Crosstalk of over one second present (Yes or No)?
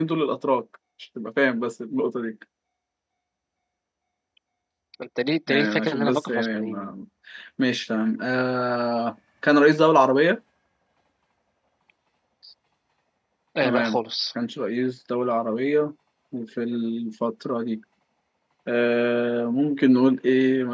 Yes